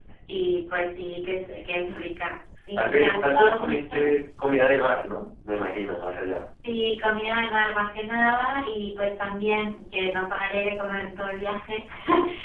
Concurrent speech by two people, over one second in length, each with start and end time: 2.8-4.1

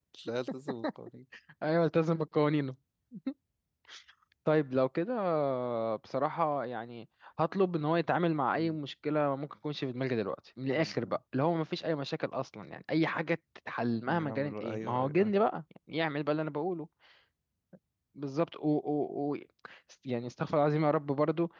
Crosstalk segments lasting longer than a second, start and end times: 14.1-15.3

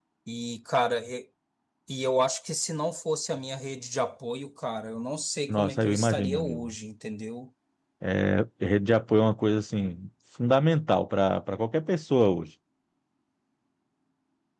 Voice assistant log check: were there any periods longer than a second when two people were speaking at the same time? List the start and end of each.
5.5-6.8

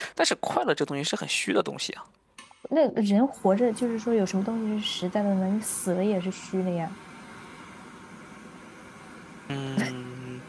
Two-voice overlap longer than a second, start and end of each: none

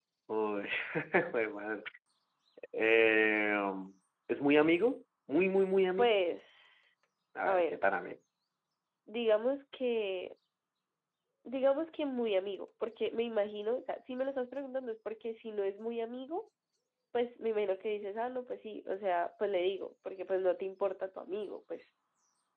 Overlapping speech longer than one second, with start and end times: none

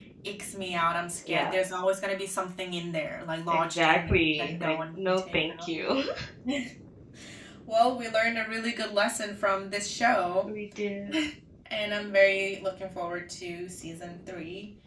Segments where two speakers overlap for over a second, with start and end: 3.5-5.7

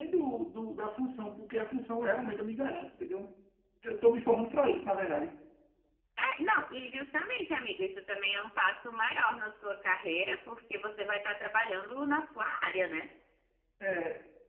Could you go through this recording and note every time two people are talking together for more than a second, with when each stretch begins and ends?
none

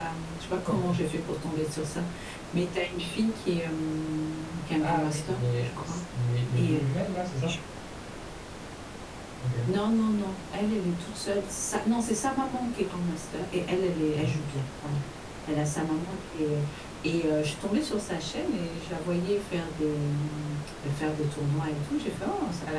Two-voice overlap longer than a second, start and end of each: 4.8-6.0

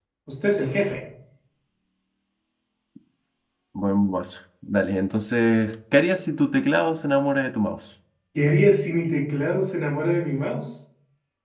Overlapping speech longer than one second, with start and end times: none

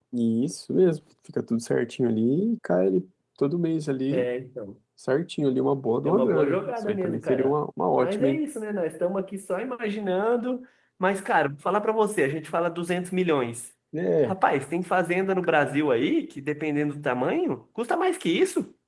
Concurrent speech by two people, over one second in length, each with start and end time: 6.0-7.5

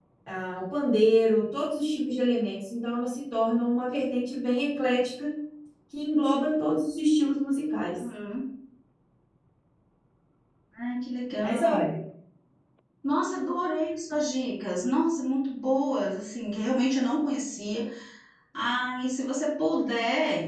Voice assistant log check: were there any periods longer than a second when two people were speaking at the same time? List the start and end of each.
none

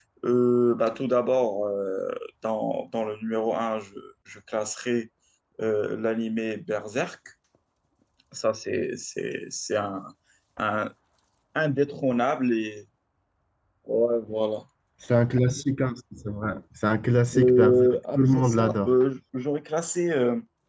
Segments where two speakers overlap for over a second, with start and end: 17.3-18.9

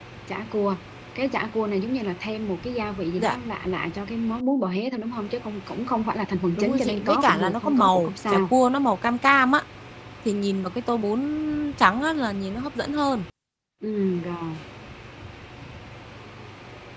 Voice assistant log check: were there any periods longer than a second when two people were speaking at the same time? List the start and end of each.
6.5-8.5

